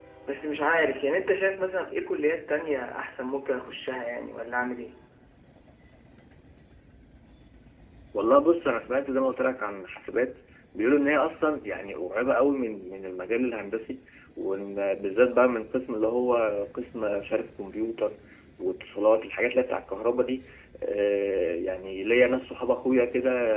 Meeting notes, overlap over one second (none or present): none